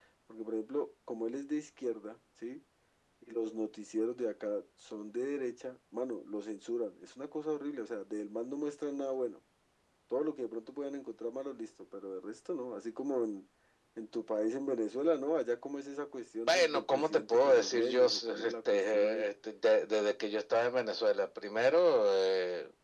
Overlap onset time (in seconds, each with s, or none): 16.5 s